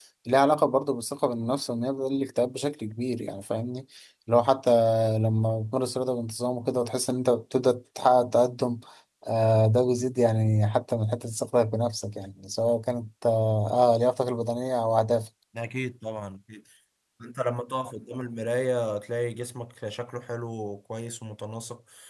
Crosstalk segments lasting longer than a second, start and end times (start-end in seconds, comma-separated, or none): none